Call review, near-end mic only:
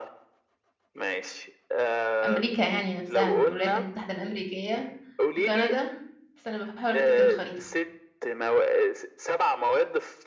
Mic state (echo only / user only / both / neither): both